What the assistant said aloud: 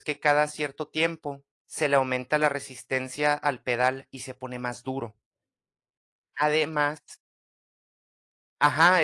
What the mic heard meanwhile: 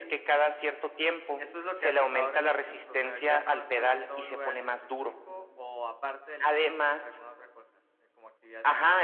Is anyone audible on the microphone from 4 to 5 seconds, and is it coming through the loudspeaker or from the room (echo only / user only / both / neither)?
both